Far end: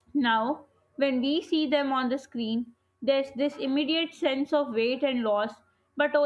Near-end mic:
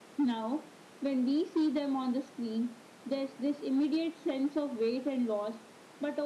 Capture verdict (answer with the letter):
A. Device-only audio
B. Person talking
A